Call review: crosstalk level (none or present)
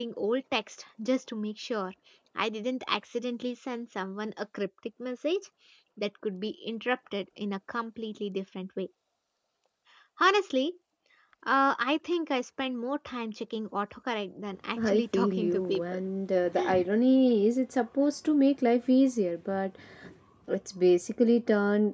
present